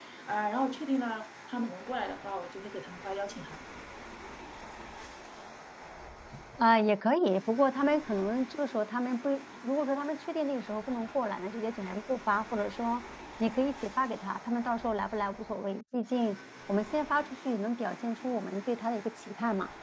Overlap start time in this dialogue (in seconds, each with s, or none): none